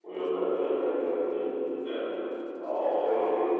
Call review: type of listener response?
listening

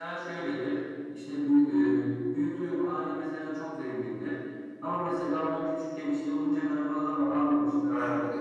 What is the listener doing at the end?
listening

